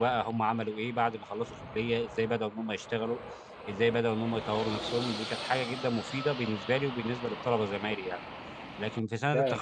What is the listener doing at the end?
taking over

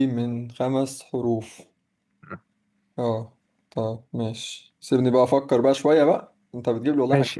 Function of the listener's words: taking over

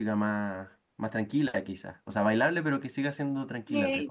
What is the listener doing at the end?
taking over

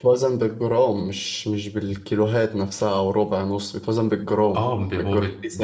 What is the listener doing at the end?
taking over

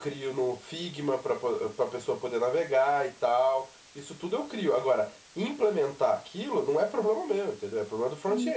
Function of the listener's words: taking over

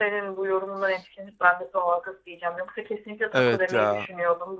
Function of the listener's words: listening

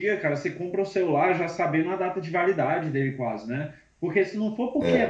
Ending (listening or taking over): listening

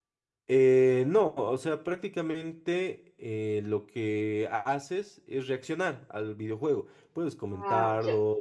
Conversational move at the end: listening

